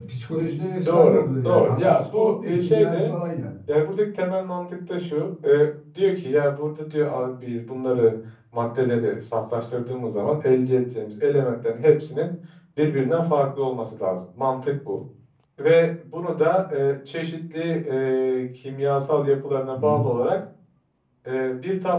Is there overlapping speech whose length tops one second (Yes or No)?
Yes